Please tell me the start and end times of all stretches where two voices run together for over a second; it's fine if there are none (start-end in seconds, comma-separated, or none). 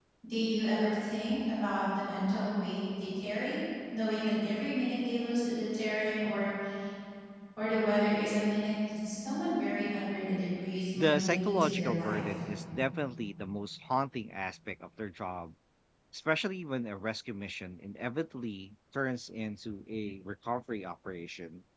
11.0-12.2